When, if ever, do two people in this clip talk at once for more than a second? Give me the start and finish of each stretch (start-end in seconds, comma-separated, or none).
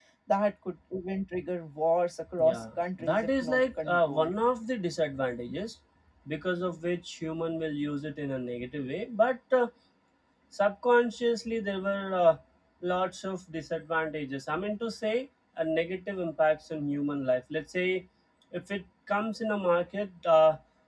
2.4-4.3